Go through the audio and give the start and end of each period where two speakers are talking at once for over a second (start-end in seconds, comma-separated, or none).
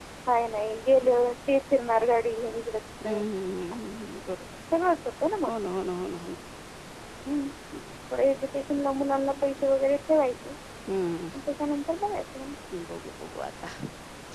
none